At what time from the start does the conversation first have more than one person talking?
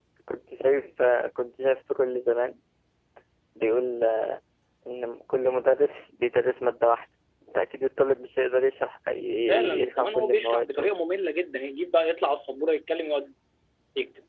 9.5 s

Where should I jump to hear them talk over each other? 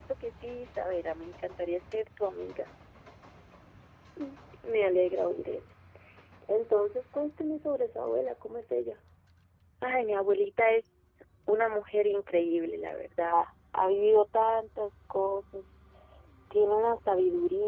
none

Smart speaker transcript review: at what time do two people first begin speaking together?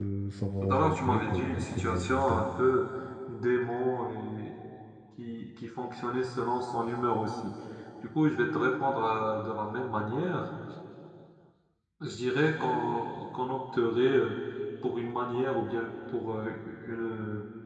0.6 s

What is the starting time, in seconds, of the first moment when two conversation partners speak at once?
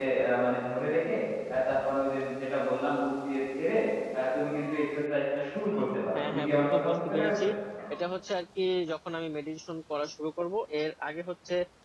6.2 s

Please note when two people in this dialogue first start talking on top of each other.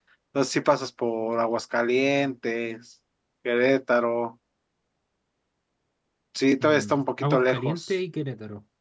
6.6 s

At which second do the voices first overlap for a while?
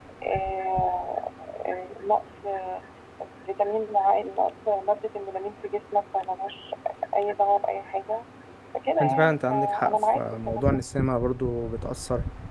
9.0 s

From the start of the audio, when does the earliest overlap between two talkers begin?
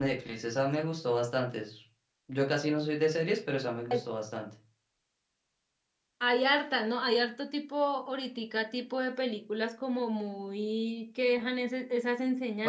none

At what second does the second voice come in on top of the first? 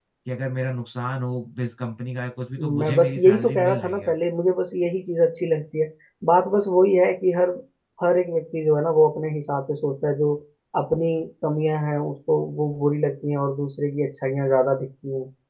2.6 s

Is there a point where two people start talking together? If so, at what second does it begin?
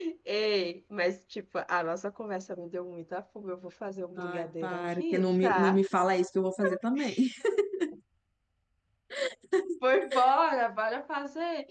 4.2 s

